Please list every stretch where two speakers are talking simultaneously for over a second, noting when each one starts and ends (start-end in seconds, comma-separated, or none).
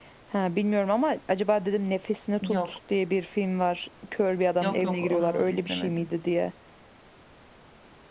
4.6-6.1